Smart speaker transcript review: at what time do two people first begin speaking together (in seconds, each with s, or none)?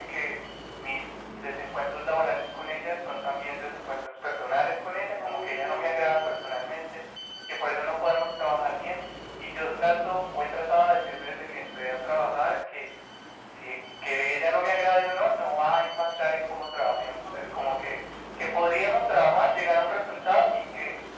5.2 s